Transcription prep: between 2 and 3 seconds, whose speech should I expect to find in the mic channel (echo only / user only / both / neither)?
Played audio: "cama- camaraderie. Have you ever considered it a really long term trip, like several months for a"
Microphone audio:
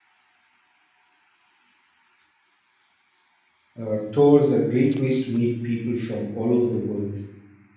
neither